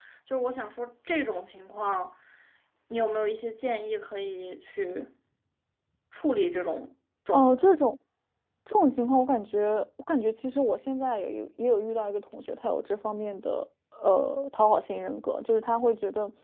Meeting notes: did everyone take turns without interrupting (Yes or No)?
Yes